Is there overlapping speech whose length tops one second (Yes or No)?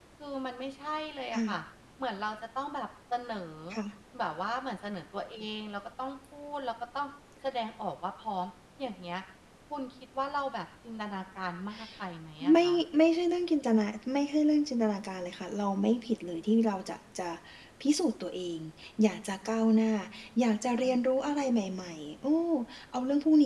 No